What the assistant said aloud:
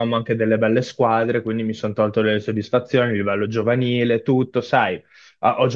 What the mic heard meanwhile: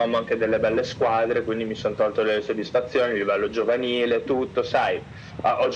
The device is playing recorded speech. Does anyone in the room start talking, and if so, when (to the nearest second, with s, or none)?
none